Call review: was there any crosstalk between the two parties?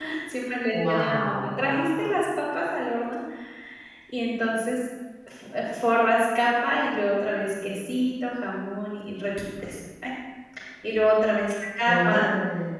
Yes, from 0.7 s

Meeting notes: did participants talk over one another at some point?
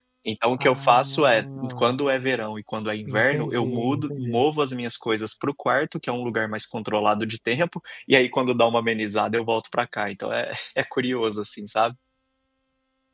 Yes, from 0.6 s

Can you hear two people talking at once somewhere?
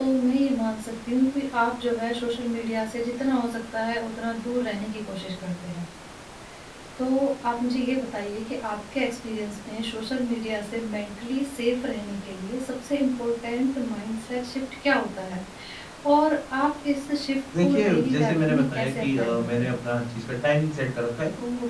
Yes, from 17.5 s

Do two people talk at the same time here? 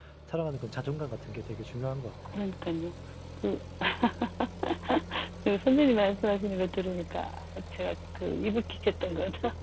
No

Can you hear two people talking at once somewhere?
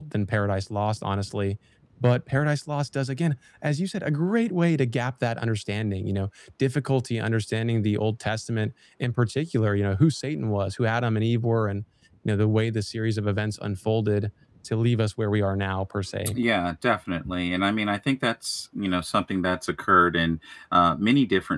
No

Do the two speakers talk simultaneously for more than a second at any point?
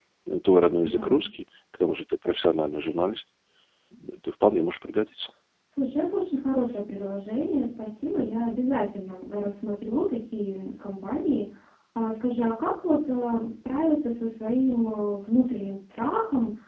No

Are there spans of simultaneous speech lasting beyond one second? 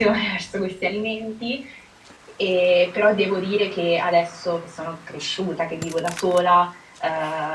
No

